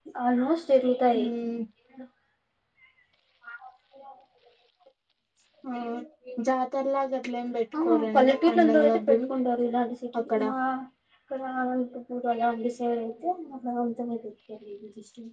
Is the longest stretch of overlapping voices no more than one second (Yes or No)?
No